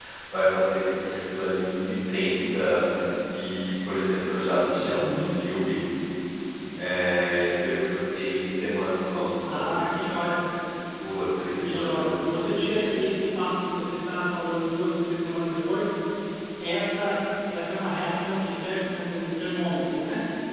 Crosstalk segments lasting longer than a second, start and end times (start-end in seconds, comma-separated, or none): 11.6-12.9